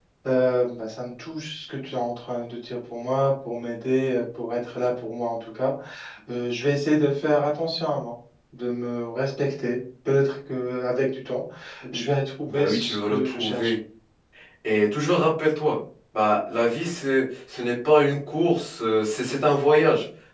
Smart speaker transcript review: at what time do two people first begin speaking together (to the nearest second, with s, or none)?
12 s